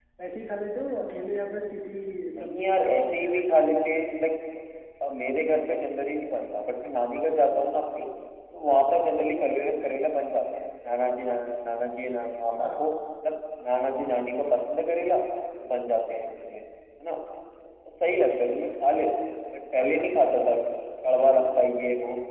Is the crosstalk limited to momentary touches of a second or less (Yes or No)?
No